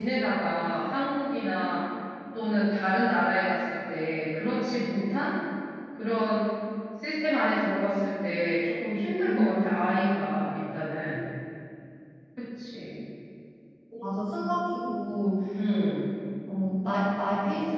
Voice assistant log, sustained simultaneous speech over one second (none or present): none